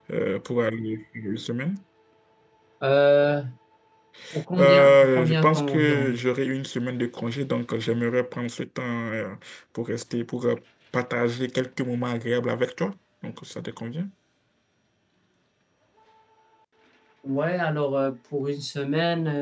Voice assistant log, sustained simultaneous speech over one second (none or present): present